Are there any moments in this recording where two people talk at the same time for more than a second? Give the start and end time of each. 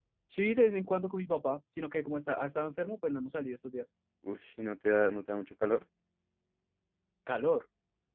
none

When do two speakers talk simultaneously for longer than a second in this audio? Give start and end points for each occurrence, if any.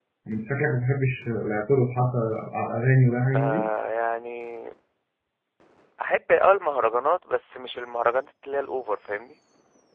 none

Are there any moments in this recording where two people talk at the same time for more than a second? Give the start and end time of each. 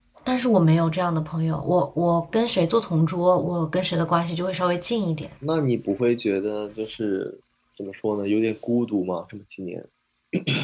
none

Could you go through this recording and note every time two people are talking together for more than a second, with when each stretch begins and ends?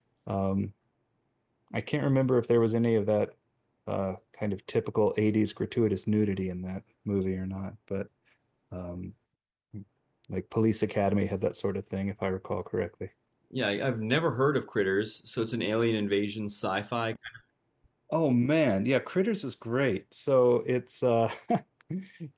none

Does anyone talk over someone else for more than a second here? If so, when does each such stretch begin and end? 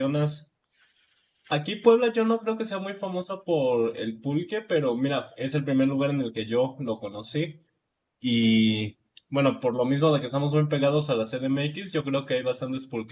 none

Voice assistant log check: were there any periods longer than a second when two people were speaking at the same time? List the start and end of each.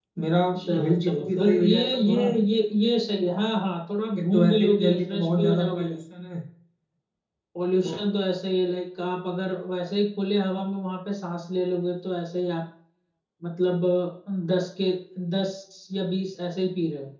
0.8-2.3, 4.2-5.9

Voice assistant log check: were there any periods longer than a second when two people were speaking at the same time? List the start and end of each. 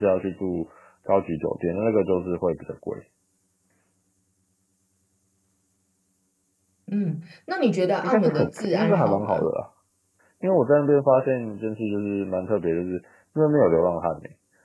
8.0-9.4

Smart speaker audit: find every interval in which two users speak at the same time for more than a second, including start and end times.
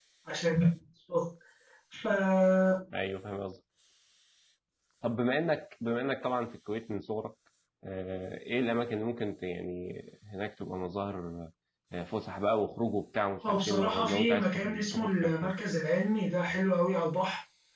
13.4-15.5

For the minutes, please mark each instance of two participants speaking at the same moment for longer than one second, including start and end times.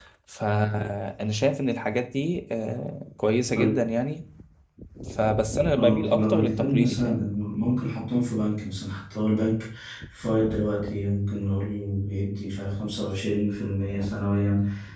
5.7-7.2

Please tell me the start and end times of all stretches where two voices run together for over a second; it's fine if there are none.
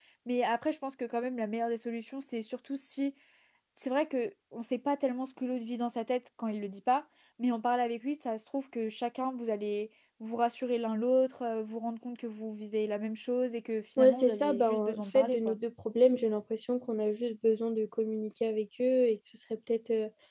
14.0-15.6

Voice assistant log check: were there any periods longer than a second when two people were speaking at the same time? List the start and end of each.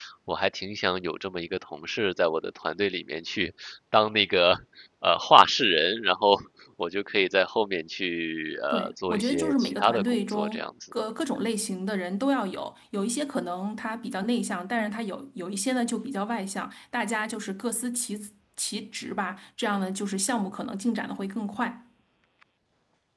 8.7-10.9

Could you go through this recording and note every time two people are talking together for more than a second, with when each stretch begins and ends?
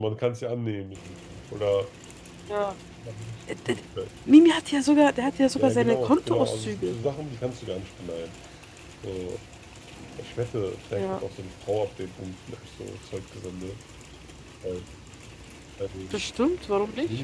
5.6-7.0

